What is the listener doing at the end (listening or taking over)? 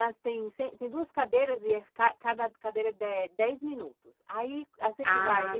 listening